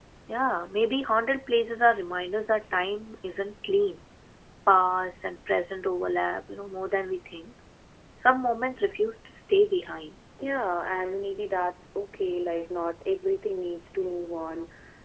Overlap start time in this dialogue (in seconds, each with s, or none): none